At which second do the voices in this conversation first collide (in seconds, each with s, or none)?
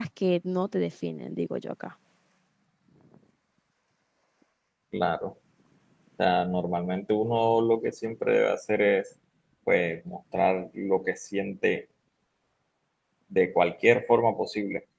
none